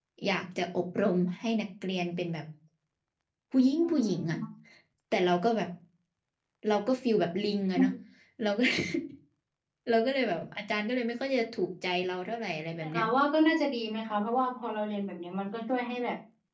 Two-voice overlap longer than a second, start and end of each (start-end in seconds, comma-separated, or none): none